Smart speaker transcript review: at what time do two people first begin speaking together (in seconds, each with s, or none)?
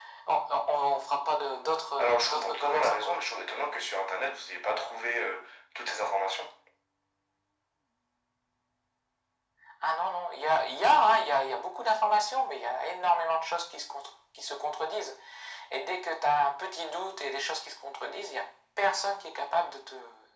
2.0 s